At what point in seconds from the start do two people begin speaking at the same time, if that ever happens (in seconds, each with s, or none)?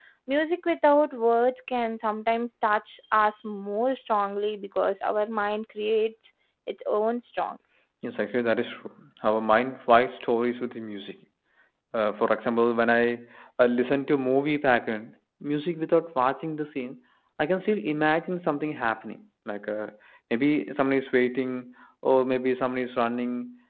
none